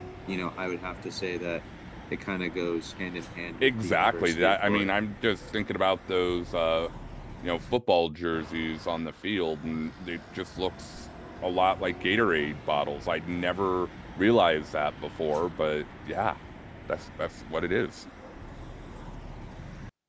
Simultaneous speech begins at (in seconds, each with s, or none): 3.6 s